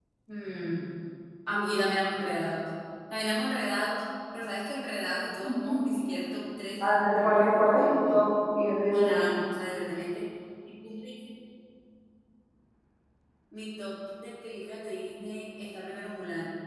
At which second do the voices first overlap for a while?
6.8 s

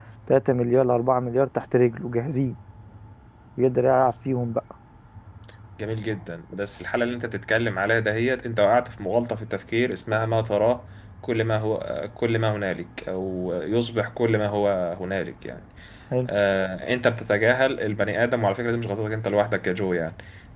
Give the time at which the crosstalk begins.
none

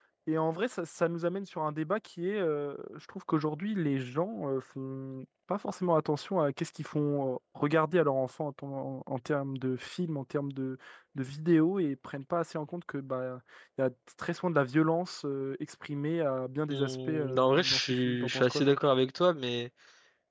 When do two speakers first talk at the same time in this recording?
16.7 s

